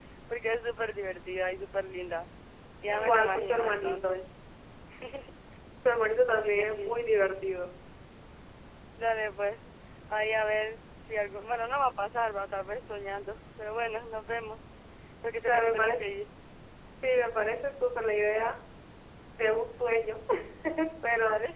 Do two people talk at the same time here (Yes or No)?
Yes